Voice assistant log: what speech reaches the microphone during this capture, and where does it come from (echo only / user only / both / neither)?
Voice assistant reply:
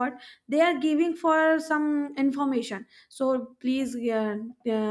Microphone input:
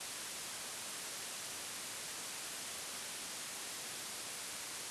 neither